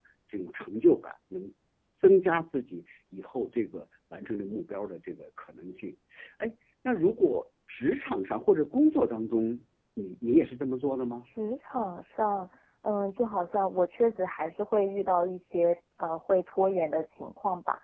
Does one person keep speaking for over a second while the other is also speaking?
No

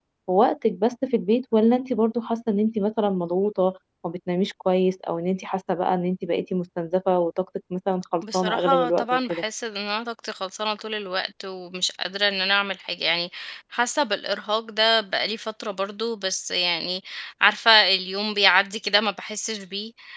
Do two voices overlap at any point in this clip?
Yes, from 8.2 s

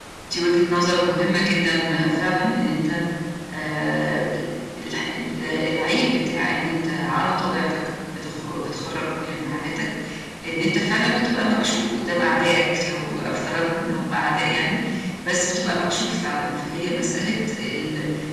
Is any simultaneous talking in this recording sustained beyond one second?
No

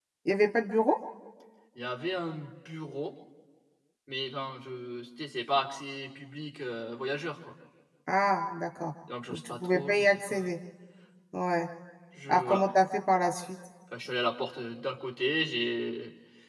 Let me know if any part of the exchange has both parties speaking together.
Yes, from 9.3 s

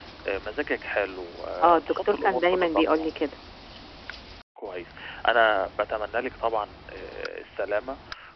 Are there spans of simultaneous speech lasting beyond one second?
Yes, from 1.9 s

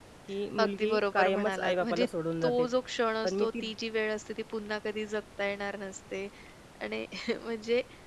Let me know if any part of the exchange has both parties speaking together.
Yes, from 0.6 s

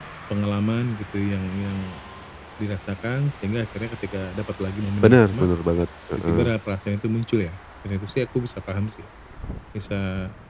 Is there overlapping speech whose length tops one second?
No

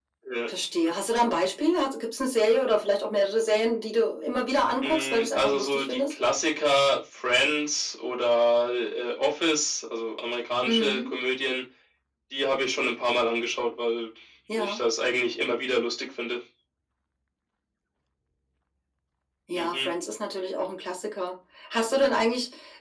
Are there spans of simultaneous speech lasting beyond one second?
Yes, from 4.8 s

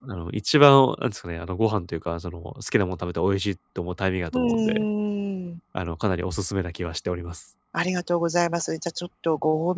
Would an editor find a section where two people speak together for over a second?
No

